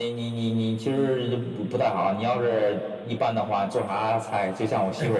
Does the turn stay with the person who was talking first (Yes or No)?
Yes